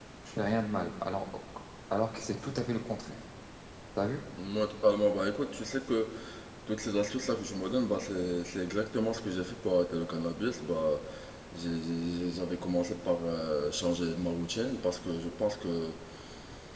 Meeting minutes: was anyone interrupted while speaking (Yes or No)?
No